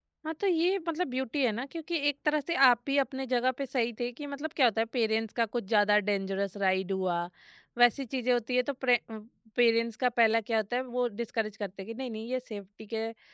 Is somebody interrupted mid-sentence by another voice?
No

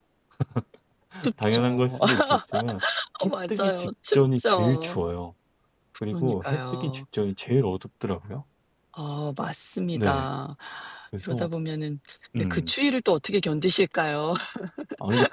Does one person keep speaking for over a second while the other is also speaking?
Yes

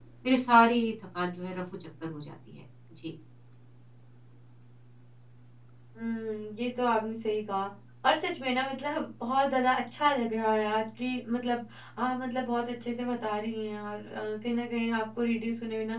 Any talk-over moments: No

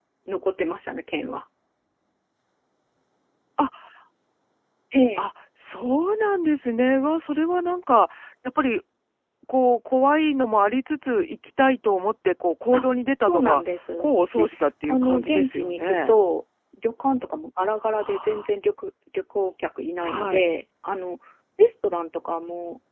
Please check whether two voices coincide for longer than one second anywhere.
Yes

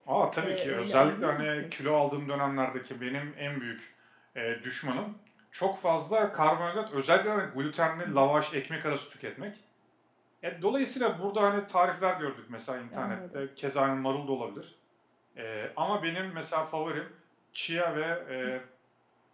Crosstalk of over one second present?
Yes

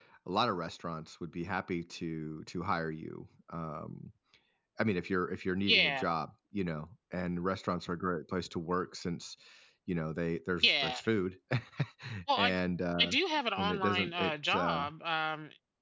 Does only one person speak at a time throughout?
No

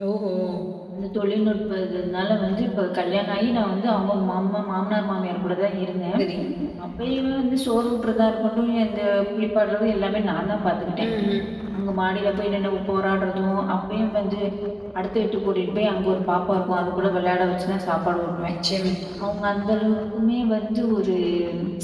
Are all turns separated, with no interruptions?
Yes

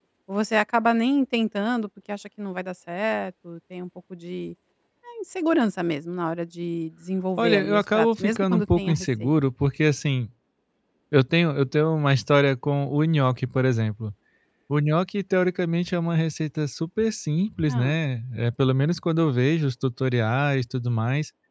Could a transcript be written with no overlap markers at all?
No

